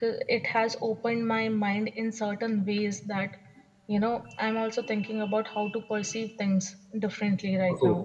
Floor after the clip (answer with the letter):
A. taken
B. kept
A